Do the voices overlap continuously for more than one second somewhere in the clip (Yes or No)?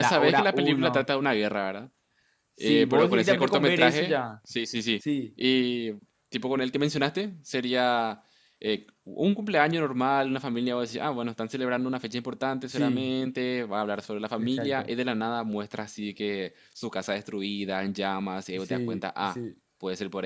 Yes